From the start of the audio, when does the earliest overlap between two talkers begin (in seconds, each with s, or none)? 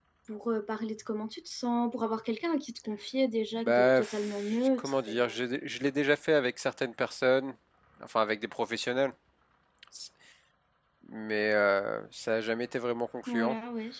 3.6 s